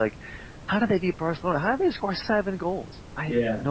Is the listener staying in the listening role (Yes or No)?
No